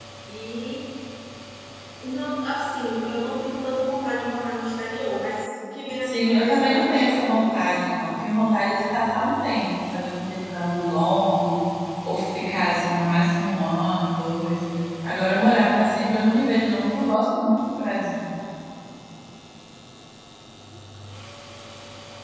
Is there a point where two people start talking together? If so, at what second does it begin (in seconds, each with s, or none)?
6.0 s